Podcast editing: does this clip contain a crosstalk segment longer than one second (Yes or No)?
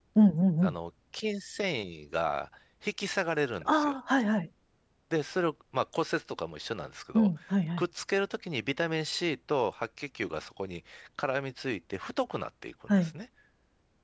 No